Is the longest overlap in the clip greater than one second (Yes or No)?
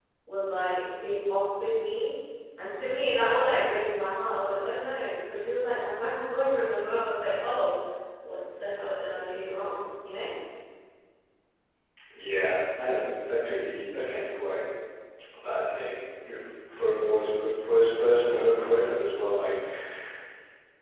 No